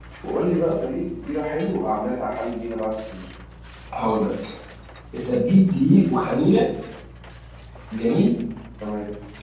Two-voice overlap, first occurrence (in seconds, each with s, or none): none